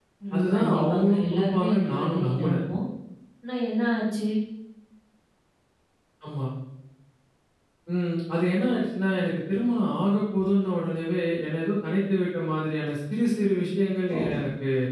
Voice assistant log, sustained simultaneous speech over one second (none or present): present